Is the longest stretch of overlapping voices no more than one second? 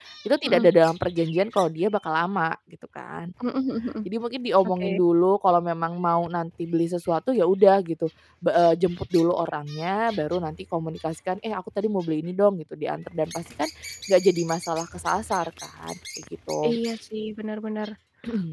Yes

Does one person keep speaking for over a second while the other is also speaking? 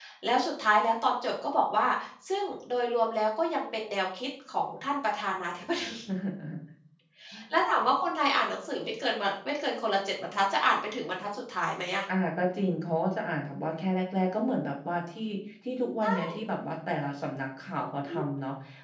No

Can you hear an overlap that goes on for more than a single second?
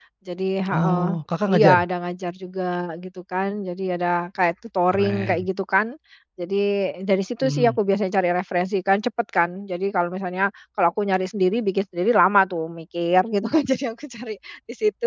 No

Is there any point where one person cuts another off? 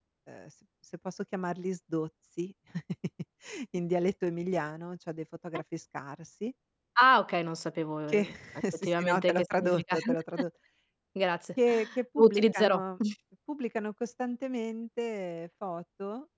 Yes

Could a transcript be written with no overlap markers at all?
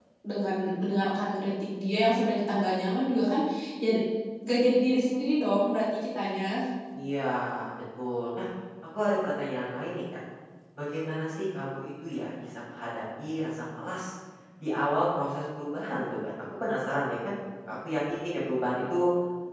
Yes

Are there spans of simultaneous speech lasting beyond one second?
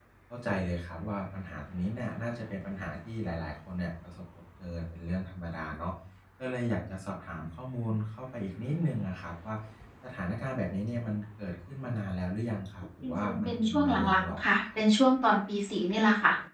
Yes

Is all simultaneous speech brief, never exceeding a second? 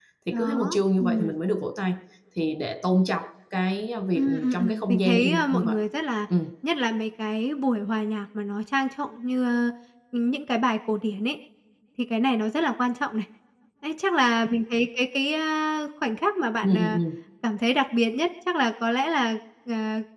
No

